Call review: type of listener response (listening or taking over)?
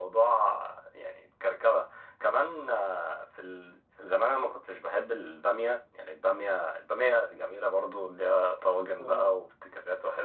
listening